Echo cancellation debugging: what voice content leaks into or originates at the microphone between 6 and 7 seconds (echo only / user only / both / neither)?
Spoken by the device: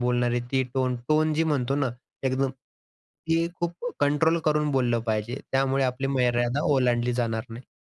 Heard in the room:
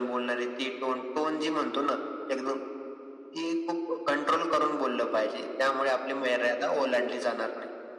echo only